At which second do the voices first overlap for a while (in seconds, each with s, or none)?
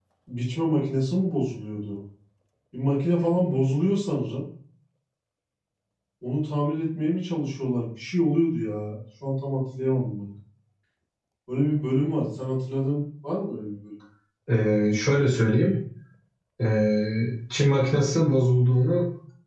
none